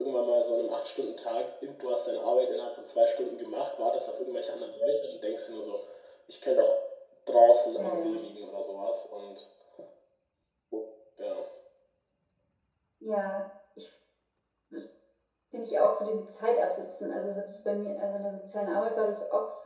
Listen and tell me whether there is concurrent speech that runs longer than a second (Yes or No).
No